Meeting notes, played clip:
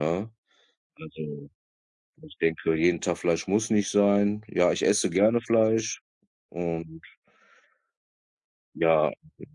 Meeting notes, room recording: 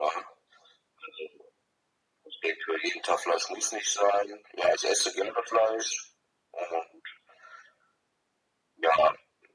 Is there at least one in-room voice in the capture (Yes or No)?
No